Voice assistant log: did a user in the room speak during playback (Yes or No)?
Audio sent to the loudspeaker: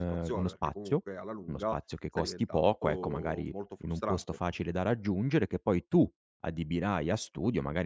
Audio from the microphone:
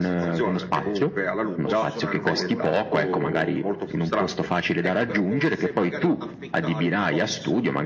Yes